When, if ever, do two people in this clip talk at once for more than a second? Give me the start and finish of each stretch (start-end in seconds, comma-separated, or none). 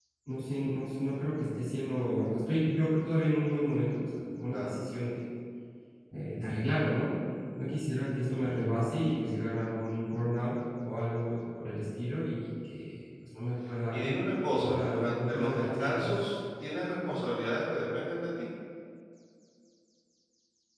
14.5-16.1